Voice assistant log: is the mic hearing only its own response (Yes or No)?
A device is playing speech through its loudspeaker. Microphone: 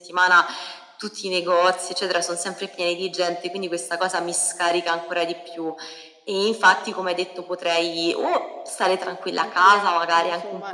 No